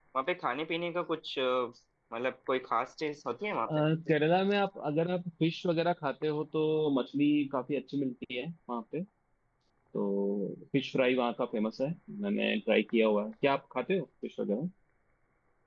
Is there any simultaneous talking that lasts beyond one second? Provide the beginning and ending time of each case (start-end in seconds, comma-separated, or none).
none